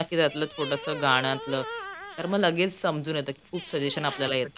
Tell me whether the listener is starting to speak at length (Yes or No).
Yes